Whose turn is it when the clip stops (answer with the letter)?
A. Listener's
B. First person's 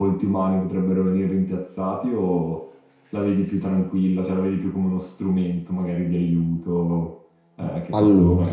A